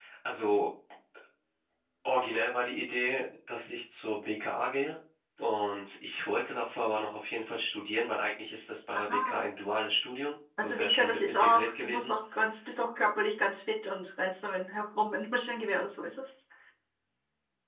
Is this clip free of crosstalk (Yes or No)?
No